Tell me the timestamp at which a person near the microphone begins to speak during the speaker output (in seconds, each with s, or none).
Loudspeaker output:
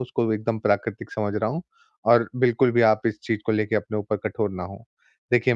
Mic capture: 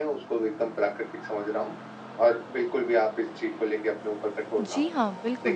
4.6 s